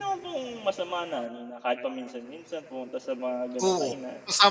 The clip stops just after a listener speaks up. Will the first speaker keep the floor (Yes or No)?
No